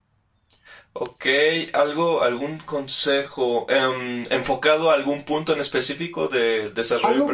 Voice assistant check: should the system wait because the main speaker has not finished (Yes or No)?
No